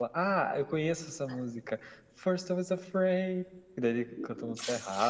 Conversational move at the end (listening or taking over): taking over